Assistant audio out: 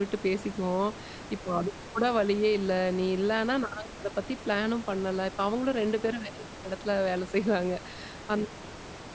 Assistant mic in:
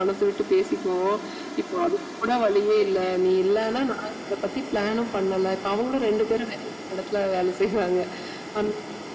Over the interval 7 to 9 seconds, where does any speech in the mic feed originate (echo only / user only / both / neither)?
echo only